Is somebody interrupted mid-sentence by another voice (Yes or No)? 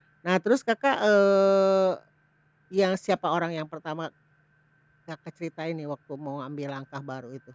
No